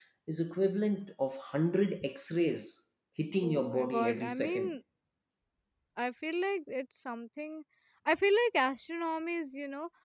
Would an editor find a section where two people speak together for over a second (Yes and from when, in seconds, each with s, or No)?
Yes, from 3.4 s